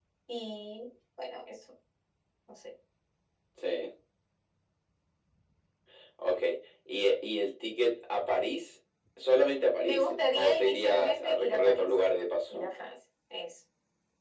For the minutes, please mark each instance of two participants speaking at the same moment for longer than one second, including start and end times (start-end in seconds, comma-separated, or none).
9.8-11.9